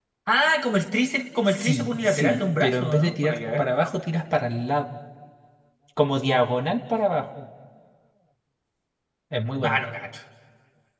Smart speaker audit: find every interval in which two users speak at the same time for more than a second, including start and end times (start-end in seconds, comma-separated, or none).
1.5-3.6